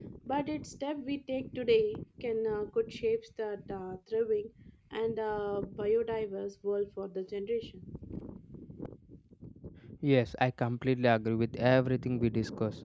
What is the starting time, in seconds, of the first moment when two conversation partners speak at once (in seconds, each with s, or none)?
none